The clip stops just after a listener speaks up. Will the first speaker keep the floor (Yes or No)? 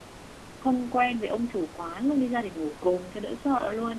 No